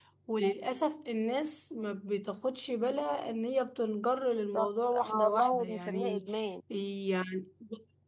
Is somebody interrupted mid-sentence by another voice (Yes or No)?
Yes